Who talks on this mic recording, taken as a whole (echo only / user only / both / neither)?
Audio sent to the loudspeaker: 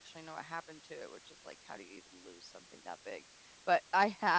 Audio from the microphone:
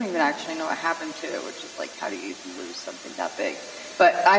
echo only